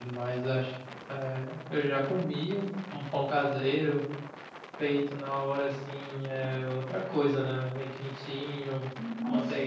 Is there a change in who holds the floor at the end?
No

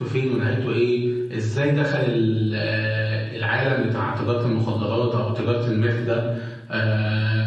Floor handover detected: No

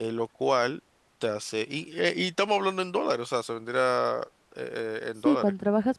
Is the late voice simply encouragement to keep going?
No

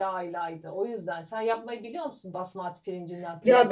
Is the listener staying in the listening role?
No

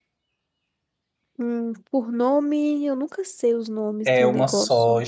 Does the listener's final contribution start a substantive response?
Yes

